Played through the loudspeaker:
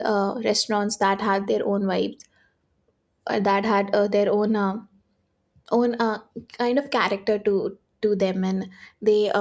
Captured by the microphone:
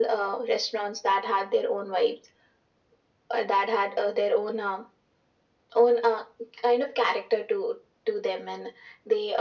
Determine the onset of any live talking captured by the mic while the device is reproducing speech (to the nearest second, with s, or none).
none